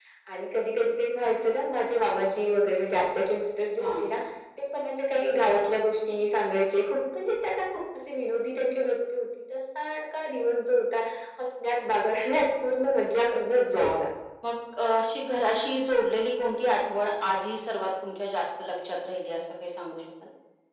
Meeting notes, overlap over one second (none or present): none